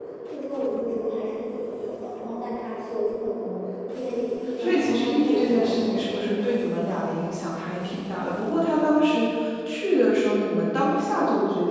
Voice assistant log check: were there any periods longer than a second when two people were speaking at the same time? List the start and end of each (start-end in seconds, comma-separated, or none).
4.6-6.3